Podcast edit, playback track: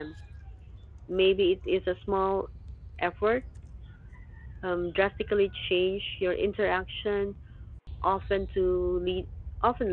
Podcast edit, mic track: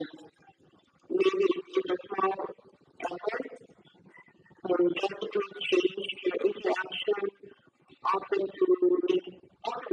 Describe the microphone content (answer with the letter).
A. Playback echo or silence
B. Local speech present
A